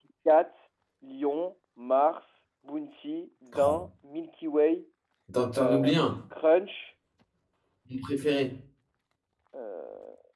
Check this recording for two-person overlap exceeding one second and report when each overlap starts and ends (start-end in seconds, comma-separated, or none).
none